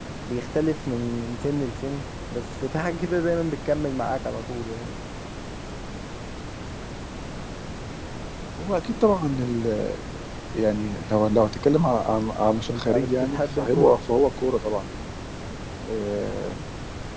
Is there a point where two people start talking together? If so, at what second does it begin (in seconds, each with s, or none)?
12.7 s